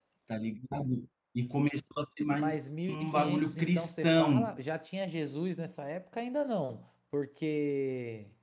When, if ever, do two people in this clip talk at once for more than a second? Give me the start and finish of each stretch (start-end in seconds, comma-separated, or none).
2.3-4.5